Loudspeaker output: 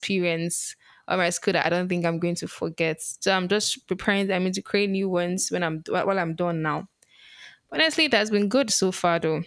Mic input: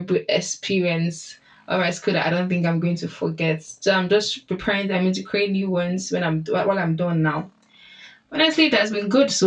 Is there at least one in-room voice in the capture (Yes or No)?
No